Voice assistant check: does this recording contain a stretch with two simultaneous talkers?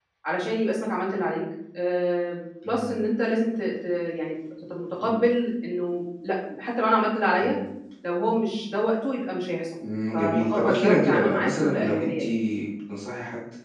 Yes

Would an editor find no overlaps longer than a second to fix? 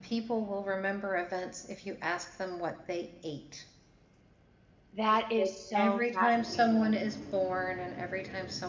No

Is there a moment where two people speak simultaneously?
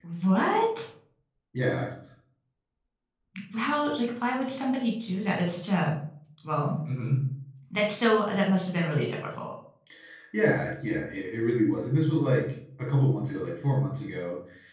No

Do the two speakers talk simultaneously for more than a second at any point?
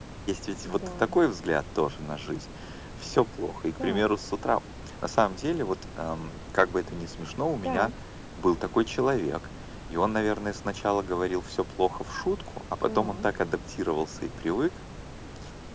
No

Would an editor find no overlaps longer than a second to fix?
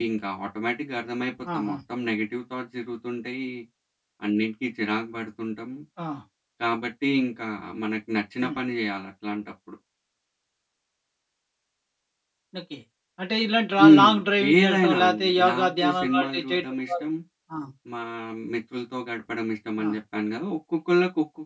No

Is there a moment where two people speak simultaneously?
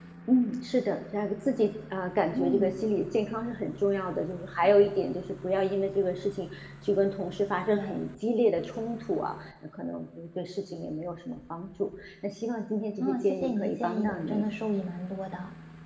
Yes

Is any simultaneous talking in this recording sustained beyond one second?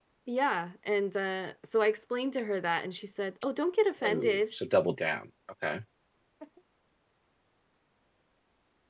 No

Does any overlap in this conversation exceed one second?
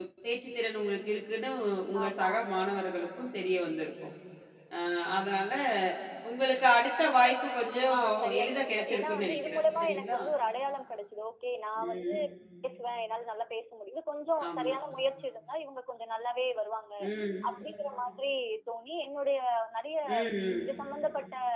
Yes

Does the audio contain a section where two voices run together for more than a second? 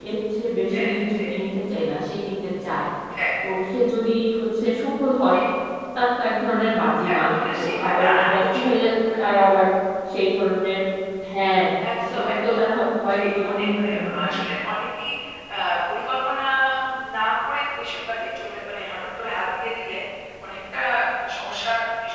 Yes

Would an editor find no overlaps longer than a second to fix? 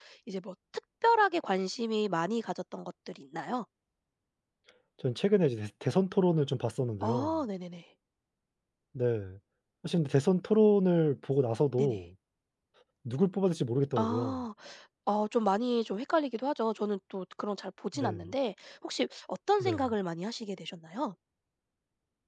Yes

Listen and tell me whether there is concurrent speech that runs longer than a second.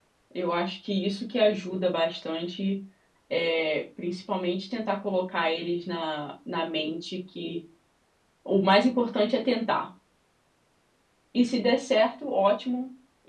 No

